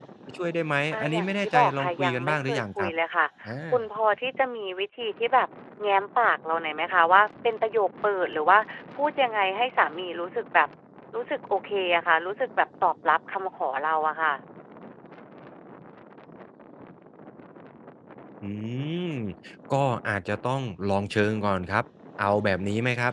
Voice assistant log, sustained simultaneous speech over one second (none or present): present